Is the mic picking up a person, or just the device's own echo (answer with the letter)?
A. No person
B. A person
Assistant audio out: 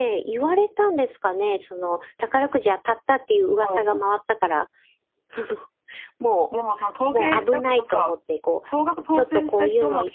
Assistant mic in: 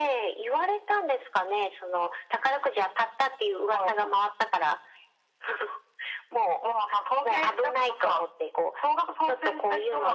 A